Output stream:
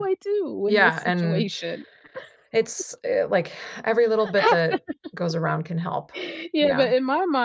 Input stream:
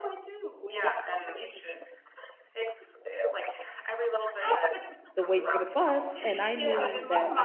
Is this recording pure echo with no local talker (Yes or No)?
No